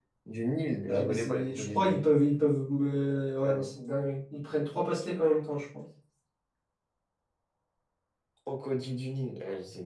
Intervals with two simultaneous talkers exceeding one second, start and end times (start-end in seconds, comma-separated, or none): 0.9-2.1